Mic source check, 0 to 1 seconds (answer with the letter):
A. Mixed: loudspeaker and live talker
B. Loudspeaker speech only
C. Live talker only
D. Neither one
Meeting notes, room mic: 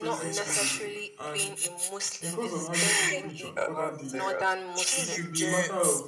A